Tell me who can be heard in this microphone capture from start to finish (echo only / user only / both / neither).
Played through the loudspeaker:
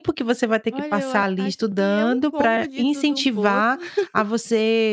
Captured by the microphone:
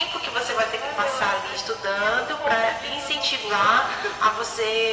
echo only